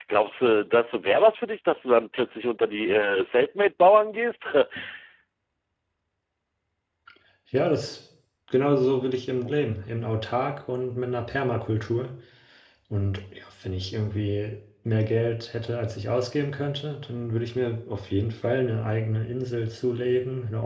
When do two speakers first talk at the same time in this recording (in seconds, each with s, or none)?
none